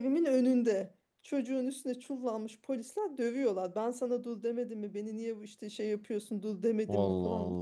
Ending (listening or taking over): listening